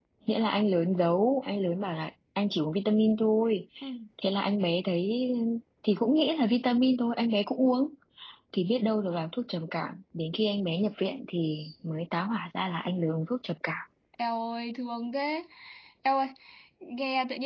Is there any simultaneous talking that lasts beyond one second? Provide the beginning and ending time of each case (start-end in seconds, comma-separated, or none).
none